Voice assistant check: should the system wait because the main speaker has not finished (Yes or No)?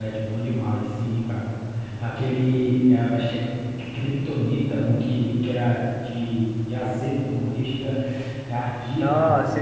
No